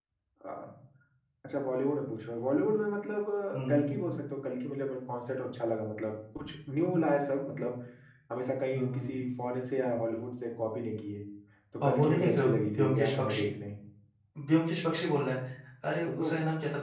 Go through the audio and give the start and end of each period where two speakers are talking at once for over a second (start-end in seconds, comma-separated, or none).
11.8-13.5